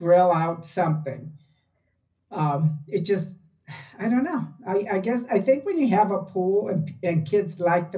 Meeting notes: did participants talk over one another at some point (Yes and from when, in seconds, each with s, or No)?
No